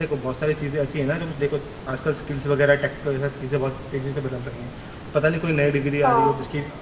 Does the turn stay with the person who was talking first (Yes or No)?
Yes